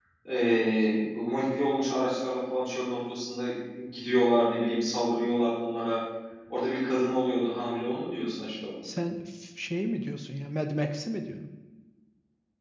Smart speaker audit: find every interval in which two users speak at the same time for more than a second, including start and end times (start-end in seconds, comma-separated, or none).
none